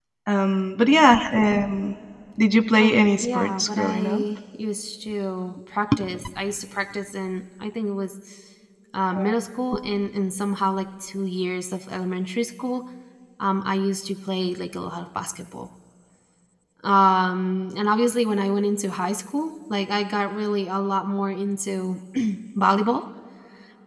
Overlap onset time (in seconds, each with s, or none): 2.8 s